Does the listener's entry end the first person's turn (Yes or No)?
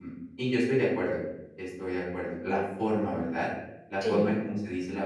No